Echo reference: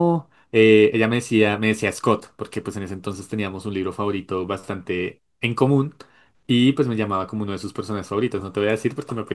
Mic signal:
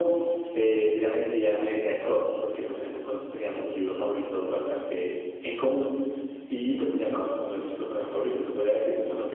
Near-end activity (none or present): none